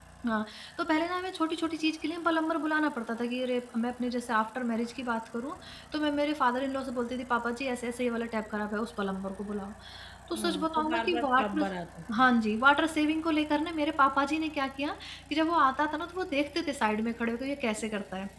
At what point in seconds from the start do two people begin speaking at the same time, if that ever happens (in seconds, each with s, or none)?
10.4 s